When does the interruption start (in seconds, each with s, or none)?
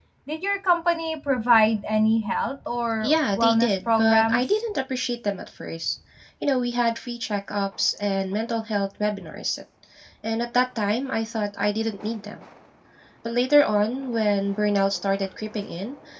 3.0 s